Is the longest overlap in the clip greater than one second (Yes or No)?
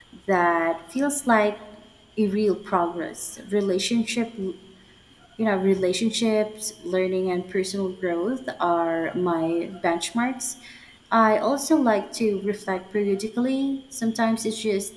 No